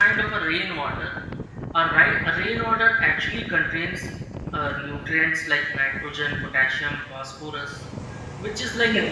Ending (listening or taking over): listening